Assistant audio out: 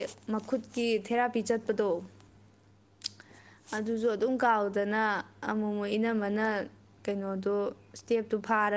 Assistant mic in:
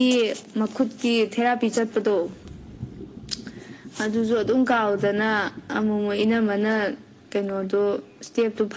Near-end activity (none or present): none